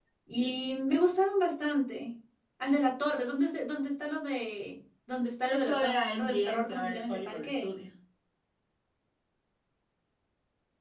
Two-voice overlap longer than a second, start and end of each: 5.5-7.7

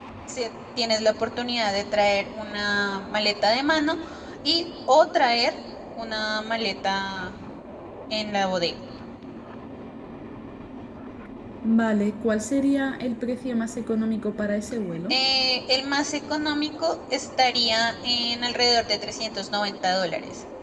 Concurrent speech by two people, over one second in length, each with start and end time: none

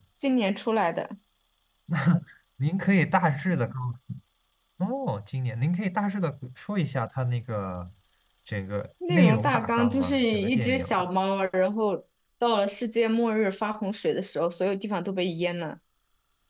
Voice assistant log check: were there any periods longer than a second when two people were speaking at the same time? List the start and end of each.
9.1-11.1

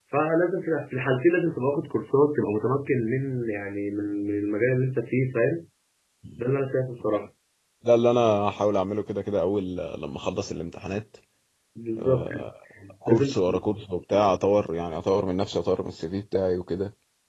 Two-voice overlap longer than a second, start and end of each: none

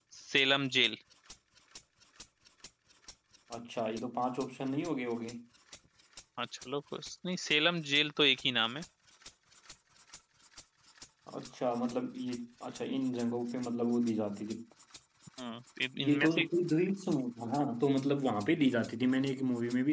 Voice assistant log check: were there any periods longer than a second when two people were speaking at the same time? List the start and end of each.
none

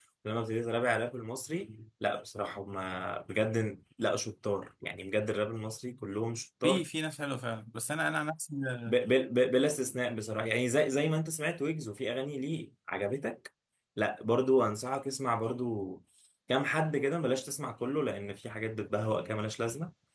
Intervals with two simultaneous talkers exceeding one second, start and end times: none

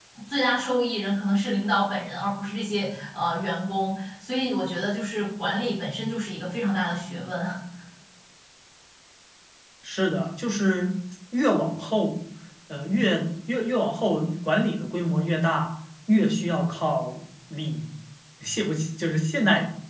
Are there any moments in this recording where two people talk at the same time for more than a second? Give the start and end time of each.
none

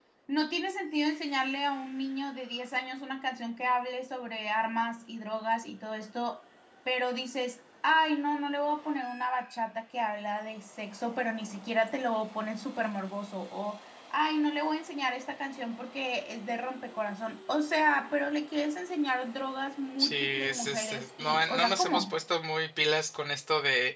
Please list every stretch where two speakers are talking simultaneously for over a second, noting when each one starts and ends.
20.0-22.2

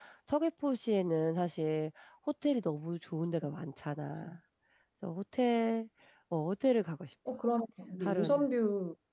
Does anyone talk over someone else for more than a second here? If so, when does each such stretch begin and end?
none

